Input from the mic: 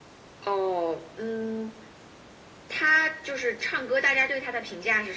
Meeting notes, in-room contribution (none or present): none